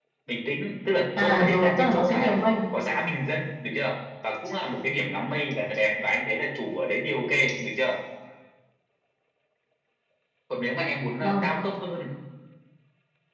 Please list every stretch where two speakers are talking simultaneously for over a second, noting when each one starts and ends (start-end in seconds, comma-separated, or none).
1.2-2.4